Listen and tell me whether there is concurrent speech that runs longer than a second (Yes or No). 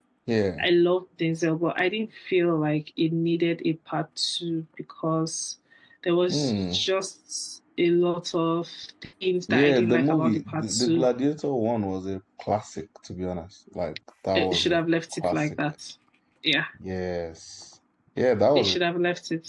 Yes